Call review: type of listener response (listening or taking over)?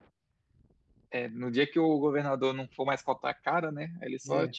listening